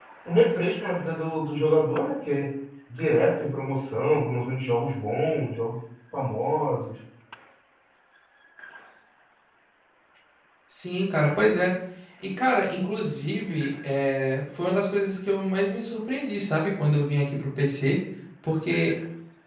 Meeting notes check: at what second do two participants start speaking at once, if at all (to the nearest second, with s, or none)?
none